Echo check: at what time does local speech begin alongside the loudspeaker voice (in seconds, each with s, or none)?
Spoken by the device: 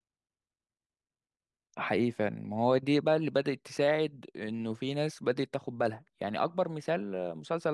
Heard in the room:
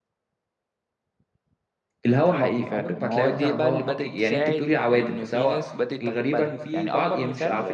2.0 s